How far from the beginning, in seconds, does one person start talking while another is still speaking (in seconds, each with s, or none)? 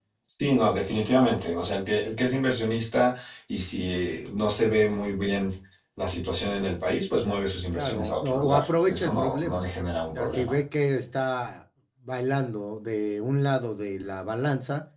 7.7 s